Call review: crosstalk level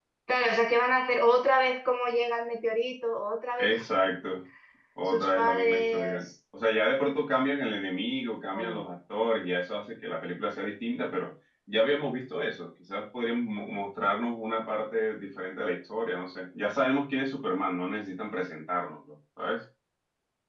present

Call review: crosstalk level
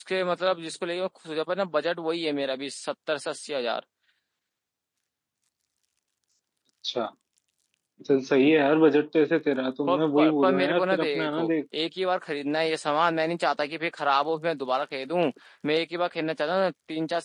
present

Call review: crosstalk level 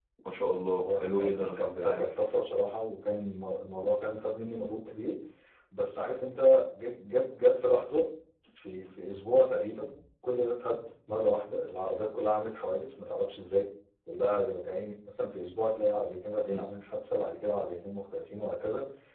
present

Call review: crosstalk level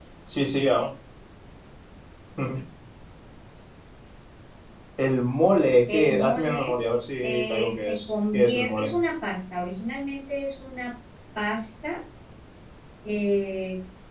present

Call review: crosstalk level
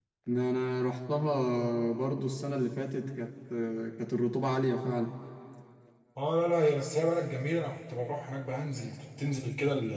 none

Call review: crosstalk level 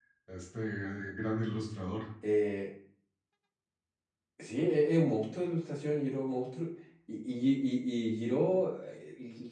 none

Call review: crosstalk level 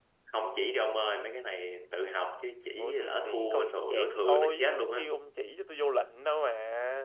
present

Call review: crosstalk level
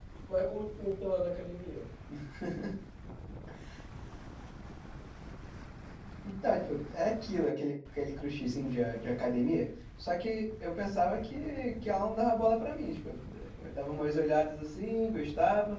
none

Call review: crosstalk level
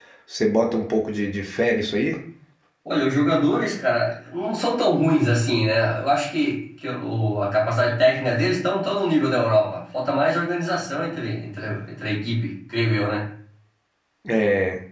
none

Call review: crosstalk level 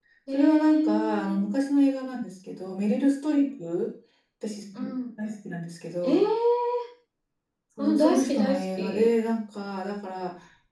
present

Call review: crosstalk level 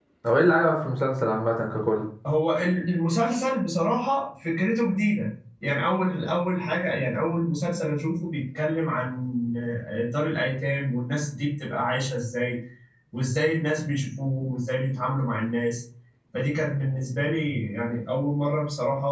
none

